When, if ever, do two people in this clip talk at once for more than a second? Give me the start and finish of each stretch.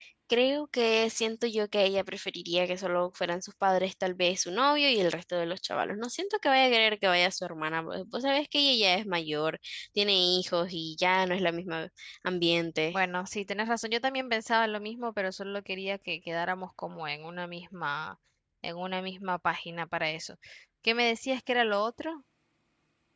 none

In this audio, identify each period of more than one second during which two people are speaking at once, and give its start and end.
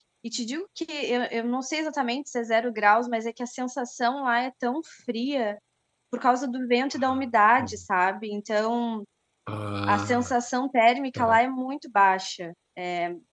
none

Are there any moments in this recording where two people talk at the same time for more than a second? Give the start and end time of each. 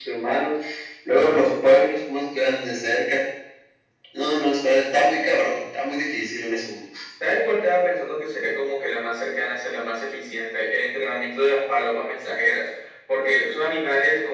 none

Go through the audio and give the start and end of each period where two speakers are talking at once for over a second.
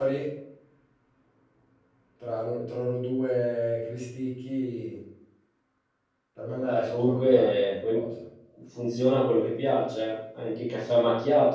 6.6-8.0

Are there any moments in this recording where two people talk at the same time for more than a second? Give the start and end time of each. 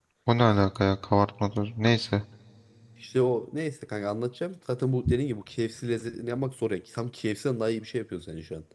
none

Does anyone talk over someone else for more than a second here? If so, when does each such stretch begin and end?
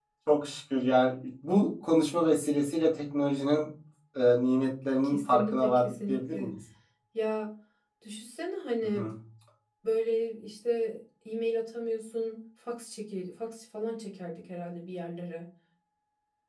5.0-6.5

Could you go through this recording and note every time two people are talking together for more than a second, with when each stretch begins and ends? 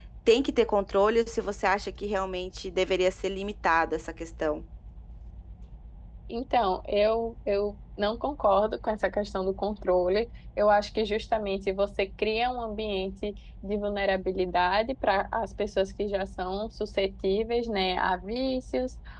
none

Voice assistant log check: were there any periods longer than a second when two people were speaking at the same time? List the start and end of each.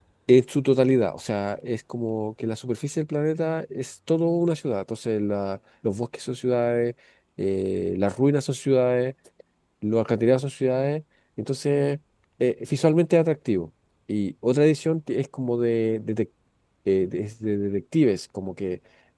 none

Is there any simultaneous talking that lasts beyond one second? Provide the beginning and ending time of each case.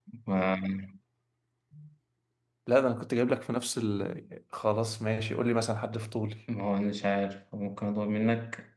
none

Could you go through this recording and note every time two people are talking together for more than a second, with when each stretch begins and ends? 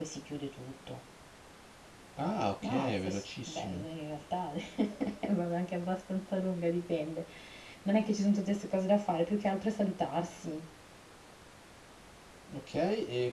2.6-3.9

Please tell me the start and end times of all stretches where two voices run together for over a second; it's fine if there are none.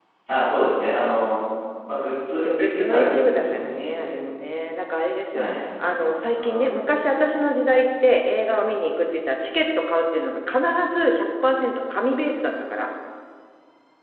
2.4-4.1

